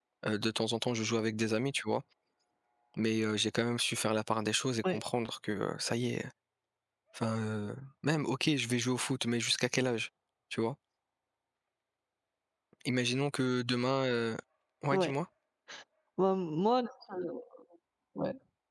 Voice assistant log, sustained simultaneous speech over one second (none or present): none